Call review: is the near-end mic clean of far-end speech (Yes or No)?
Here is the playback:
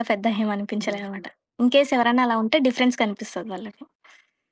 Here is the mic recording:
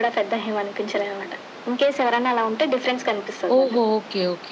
No